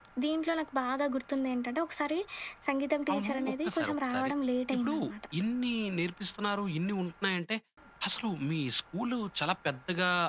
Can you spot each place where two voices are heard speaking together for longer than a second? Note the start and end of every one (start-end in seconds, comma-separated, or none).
3.1-4.3